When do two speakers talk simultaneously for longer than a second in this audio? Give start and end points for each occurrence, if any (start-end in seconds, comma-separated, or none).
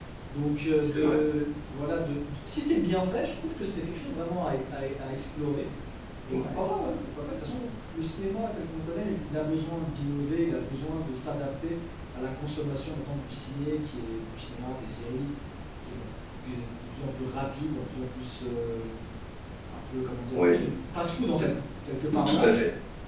none